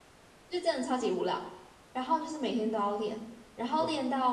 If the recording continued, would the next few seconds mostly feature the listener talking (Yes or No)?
No